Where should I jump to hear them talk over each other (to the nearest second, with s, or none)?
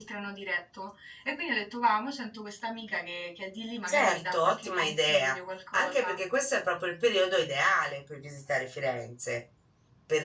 4 s